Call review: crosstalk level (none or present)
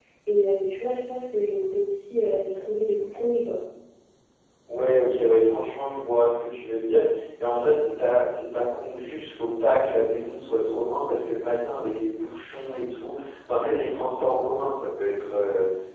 none